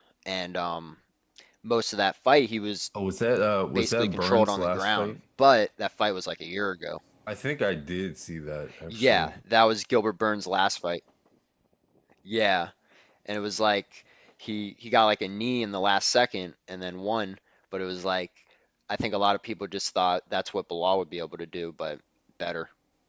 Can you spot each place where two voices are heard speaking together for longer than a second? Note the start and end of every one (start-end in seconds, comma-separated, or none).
3.8-5.1